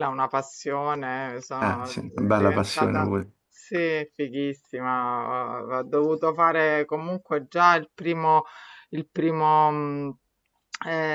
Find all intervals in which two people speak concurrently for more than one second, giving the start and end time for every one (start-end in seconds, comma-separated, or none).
1.6-3.1